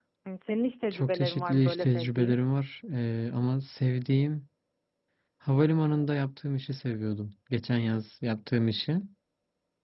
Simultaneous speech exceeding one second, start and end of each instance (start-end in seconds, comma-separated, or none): 0.9-2.4